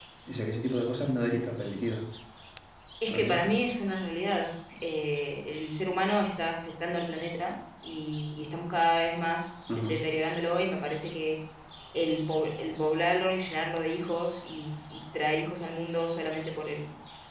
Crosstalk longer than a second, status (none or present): none